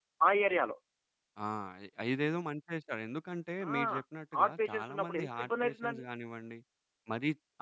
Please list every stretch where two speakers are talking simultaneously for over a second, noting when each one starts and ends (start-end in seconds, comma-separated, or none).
4.3-6.0